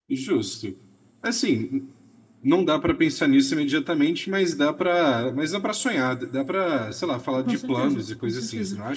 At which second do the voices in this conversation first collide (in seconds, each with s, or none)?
7.4 s